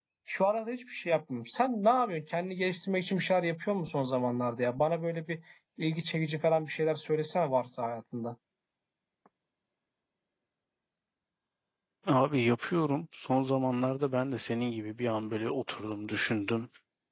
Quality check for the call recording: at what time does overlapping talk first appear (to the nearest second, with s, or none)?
none